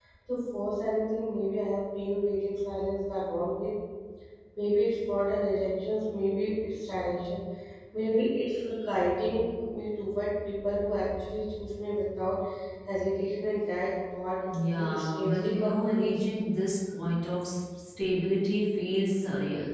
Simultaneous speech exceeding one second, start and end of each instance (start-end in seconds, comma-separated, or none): 14.7-16.2